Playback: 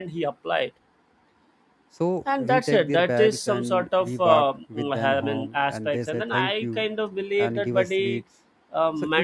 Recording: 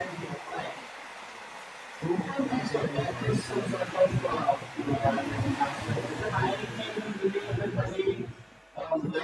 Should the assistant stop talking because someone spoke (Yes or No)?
No